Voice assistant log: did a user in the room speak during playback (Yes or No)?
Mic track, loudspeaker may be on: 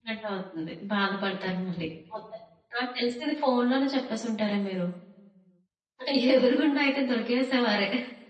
Yes